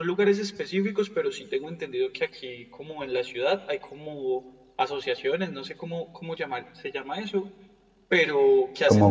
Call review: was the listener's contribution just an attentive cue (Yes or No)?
Yes